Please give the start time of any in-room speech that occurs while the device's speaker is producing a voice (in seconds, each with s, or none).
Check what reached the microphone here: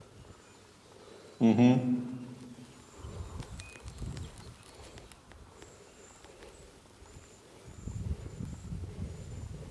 1.4 s